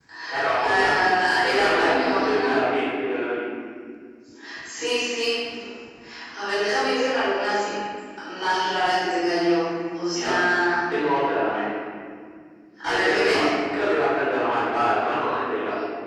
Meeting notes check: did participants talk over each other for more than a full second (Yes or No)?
Yes